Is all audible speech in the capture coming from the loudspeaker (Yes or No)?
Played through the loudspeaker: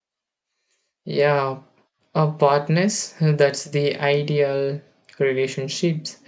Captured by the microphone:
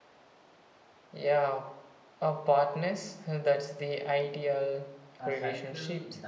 No